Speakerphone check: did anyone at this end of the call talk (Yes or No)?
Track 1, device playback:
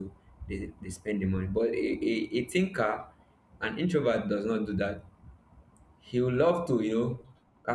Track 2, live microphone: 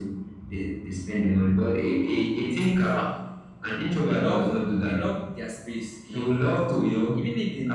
Yes